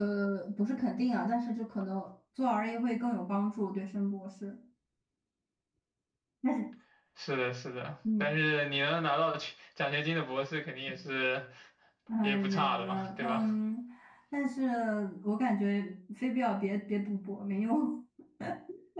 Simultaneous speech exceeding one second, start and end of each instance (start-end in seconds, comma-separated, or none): 12.2-13.5